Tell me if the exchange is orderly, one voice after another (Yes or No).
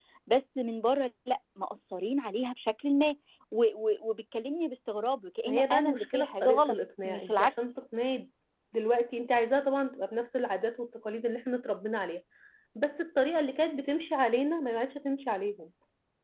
No